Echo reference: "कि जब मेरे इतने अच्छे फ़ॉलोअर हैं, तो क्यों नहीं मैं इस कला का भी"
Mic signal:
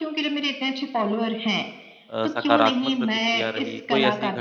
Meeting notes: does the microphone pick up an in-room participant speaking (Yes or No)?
Yes